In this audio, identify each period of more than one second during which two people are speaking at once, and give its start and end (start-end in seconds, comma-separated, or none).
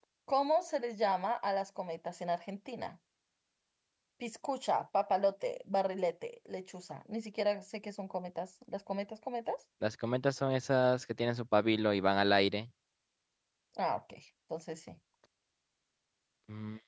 none